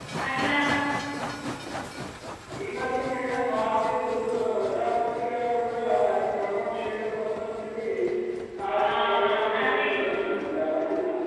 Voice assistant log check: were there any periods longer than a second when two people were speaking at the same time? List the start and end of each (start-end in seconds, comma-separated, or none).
8.8-10.2